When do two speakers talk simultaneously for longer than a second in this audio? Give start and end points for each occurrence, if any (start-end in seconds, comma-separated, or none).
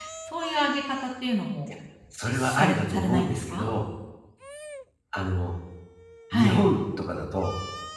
2.2-3.7